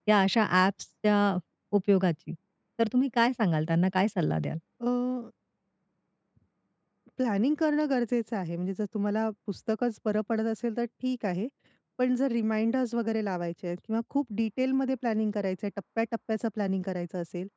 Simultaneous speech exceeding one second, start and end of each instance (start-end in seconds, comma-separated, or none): none